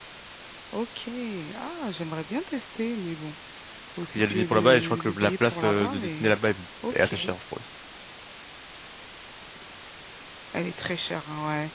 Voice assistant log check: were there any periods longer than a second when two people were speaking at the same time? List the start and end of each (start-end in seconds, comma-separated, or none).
4.1-6.3